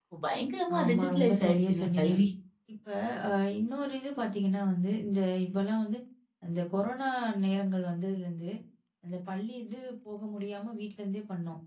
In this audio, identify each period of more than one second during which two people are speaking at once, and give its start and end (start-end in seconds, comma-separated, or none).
0.8-2.1